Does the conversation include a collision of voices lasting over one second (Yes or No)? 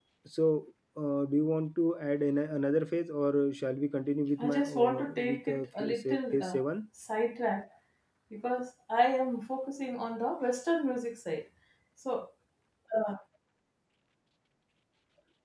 Yes